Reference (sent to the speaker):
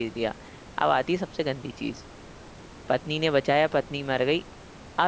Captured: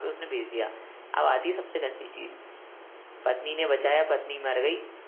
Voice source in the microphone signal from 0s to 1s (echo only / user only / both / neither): echo only